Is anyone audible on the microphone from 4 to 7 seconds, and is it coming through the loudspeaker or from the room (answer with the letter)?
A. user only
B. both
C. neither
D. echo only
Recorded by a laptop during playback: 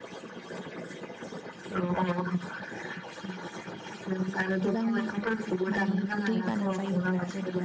B